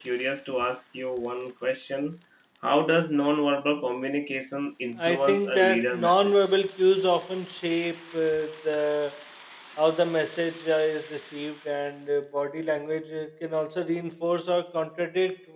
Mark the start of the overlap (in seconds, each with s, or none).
5.0 s